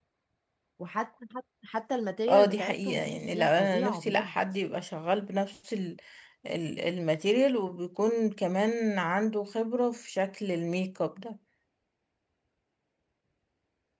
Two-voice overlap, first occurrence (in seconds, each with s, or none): 2.3 s